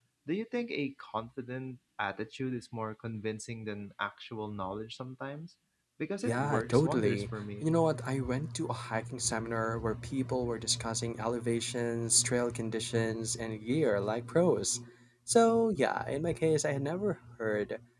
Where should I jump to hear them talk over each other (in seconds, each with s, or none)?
6.2 s